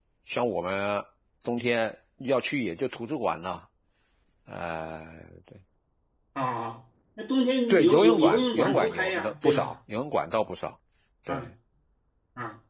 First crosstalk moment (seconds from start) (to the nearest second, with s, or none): 8 s